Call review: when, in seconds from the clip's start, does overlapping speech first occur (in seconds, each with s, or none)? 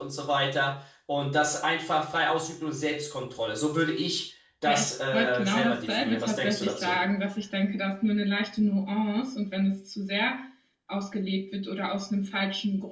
4.7 s